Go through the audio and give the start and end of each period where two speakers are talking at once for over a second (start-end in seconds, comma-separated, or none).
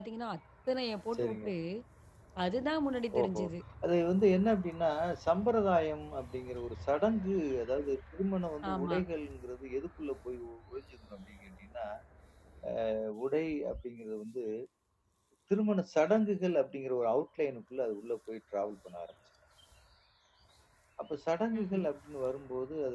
none